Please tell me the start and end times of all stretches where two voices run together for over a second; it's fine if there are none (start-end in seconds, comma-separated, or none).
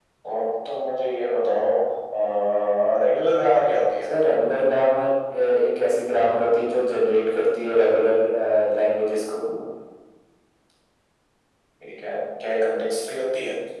none